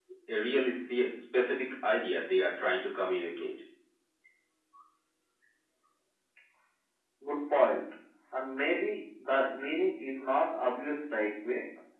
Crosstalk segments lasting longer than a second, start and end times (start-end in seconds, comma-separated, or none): none